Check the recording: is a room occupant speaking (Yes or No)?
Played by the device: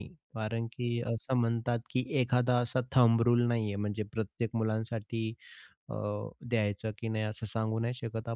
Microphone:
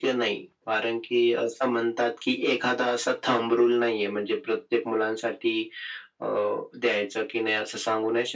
No